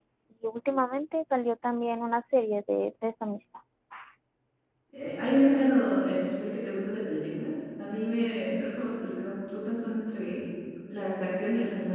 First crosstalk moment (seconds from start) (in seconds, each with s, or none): none